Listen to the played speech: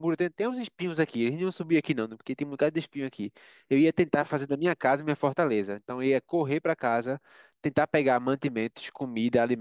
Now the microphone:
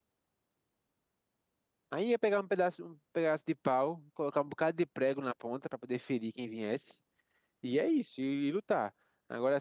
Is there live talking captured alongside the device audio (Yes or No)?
Yes